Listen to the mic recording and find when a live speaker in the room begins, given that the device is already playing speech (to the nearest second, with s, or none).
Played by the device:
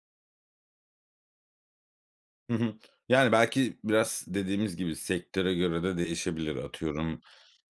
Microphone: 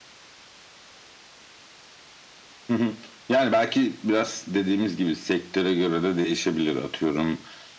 none